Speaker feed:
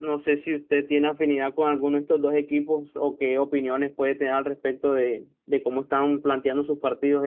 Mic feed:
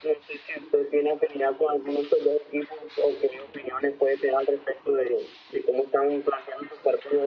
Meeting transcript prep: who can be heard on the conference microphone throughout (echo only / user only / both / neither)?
echo only